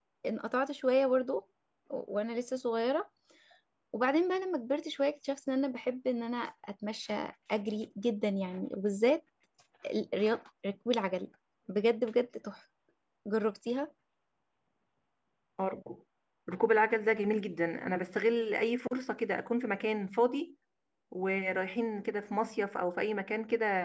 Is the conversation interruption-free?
Yes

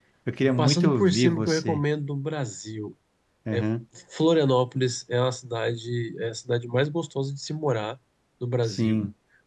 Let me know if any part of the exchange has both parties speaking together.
Yes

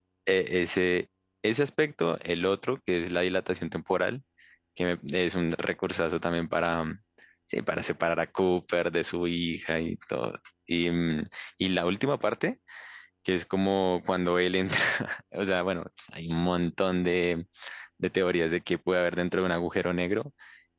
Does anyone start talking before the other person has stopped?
No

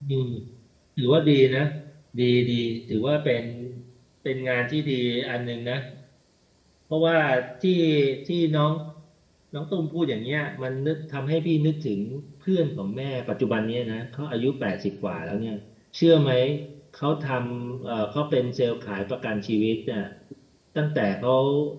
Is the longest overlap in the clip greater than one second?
No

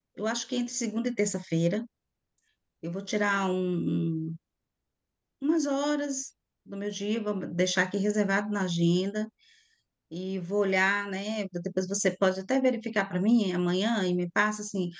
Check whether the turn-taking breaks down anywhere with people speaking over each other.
No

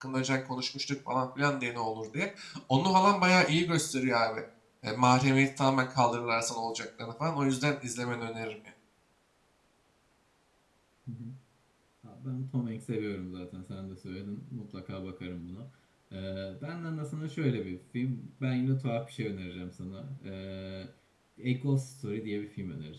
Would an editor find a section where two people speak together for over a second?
No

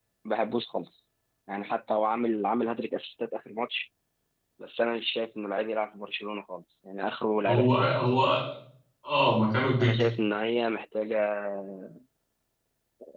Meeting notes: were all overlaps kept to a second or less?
Yes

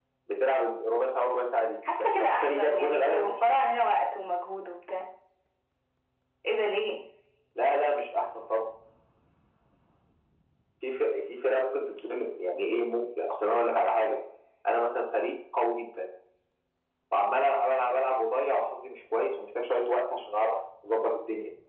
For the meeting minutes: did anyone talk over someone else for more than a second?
Yes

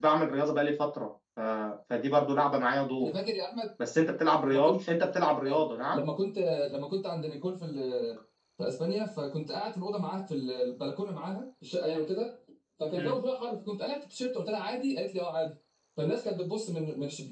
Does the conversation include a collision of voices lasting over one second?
No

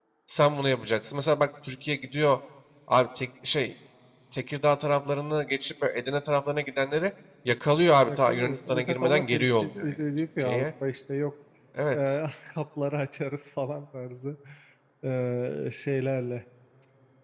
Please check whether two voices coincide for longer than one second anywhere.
Yes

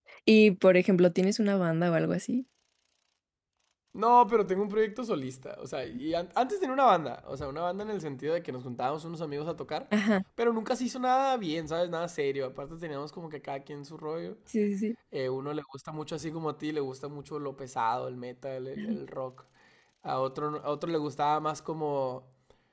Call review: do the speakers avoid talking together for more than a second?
Yes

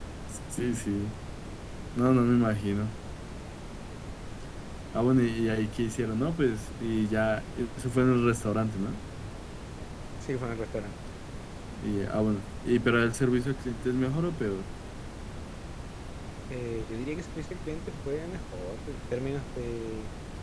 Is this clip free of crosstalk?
Yes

